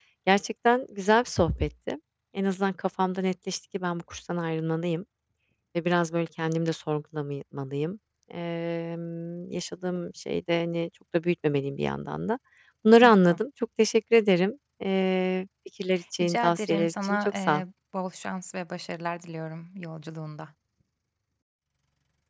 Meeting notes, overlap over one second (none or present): present